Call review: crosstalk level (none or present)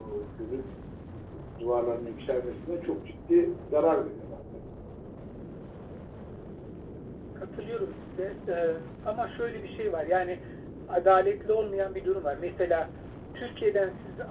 none